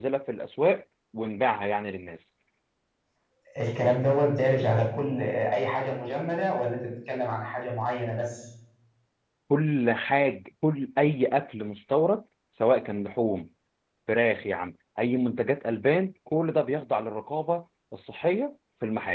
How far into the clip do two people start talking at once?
none

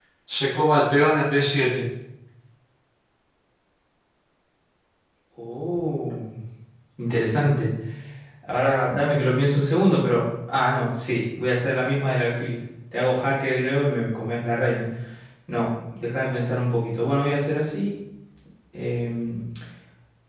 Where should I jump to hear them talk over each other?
none

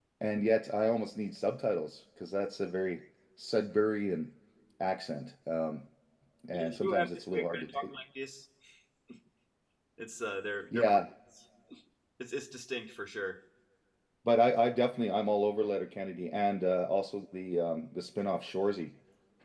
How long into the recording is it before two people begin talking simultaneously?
6.5 s

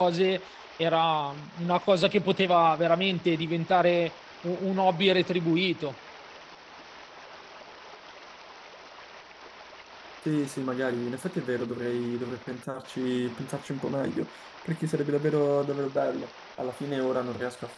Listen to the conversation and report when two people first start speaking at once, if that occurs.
none

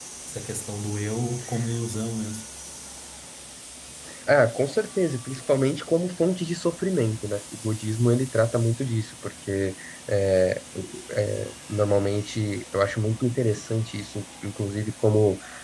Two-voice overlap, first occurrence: none

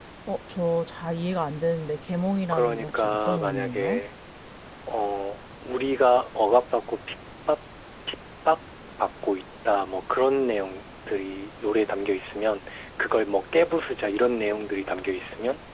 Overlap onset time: 2.5 s

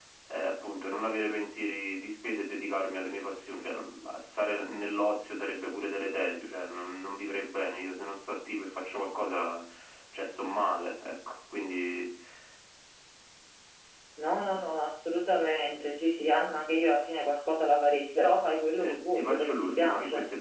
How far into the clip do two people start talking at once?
18.8 s

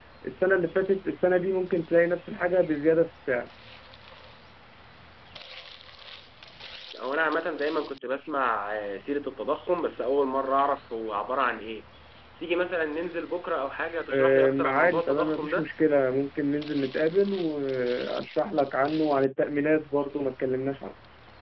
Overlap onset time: 14.1 s

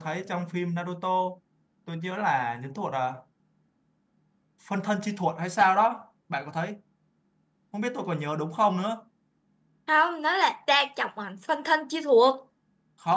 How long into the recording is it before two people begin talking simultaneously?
none

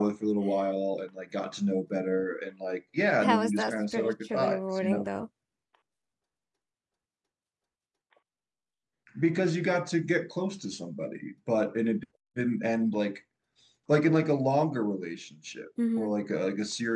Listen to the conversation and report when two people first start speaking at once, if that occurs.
3.2 s

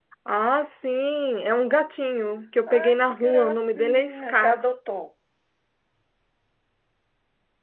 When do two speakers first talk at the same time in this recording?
2.7 s

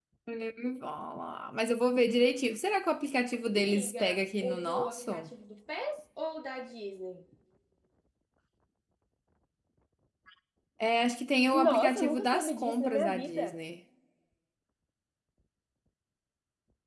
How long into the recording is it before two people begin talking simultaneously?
3.6 s

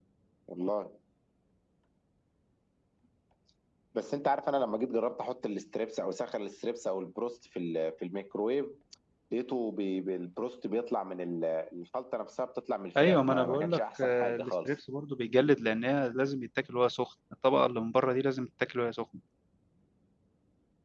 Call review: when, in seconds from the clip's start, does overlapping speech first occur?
13.0 s

